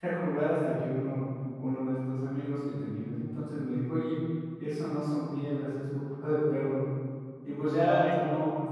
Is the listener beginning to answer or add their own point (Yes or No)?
No